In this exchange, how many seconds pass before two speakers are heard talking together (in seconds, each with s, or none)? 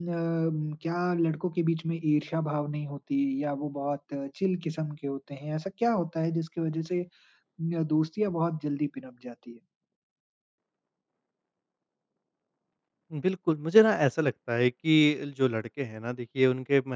none